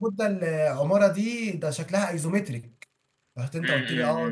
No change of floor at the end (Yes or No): No